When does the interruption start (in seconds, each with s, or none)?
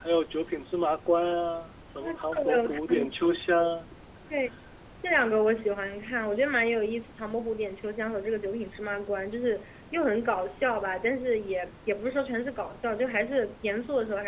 2.0 s